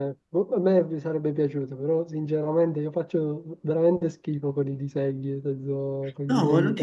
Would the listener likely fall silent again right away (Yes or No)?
No